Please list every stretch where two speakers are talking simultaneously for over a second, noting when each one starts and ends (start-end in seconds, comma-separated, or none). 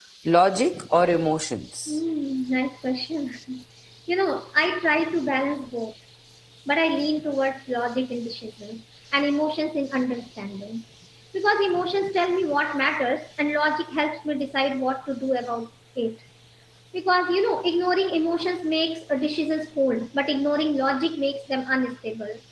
none